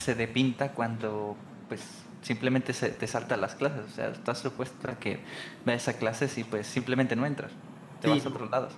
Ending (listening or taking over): taking over